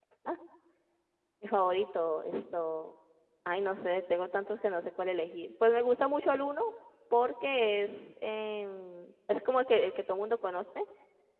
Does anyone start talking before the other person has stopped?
No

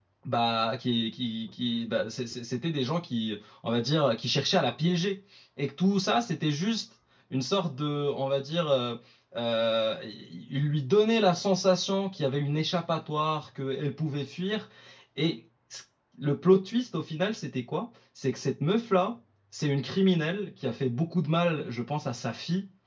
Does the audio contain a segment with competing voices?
No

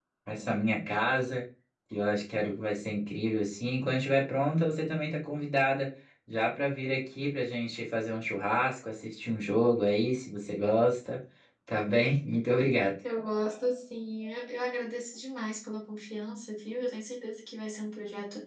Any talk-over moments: No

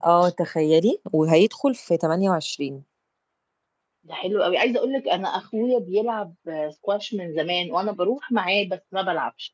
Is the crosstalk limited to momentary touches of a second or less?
Yes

